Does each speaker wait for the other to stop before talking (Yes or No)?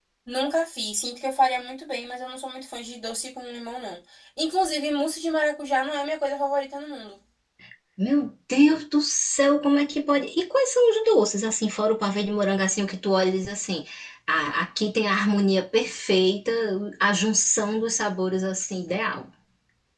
Yes